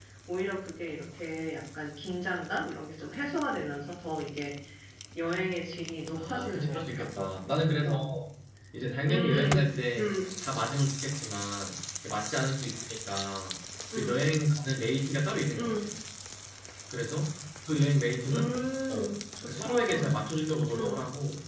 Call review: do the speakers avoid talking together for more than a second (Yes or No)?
No